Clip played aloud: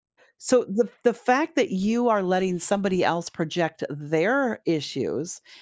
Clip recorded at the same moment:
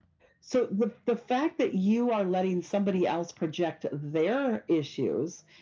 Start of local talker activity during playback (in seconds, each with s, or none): none